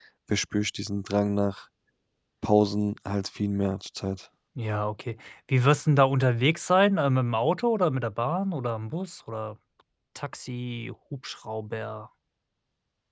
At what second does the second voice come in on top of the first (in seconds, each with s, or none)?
none